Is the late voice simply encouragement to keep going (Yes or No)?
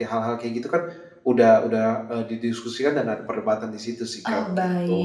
No